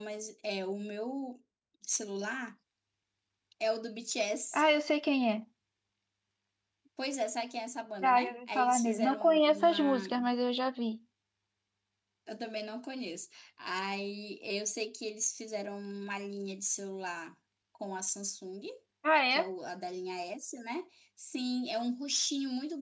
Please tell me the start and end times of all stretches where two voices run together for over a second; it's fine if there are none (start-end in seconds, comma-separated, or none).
8.0-10.0